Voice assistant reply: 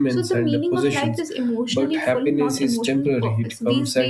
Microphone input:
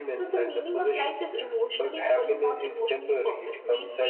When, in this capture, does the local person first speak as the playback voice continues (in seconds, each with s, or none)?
none